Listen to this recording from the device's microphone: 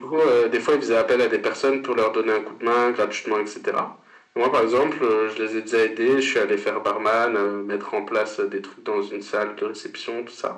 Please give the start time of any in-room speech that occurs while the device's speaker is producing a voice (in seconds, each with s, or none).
none